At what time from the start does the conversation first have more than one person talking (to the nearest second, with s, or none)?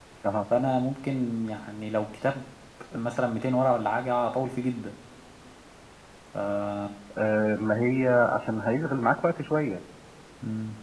none